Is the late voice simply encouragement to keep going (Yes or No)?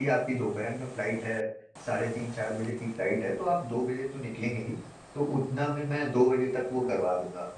Yes